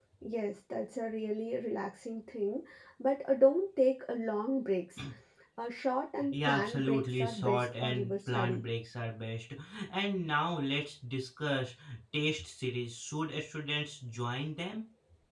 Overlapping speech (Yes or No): Yes